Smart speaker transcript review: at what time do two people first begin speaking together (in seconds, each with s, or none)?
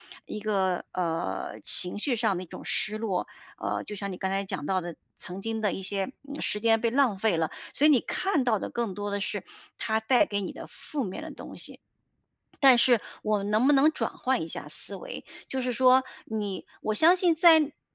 none